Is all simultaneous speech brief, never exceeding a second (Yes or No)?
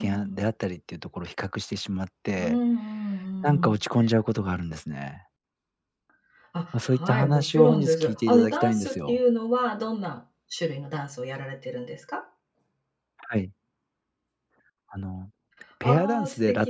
No